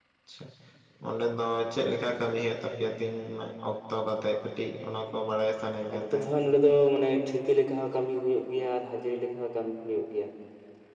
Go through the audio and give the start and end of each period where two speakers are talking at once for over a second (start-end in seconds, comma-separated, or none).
none